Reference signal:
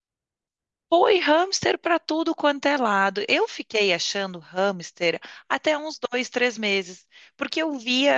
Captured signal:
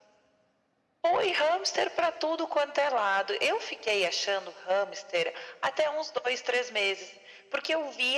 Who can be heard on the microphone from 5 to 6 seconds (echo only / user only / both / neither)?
echo only